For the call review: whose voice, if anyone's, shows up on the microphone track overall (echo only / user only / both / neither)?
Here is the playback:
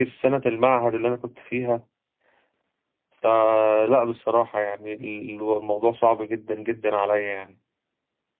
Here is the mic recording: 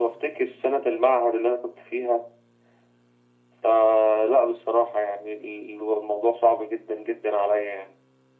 echo only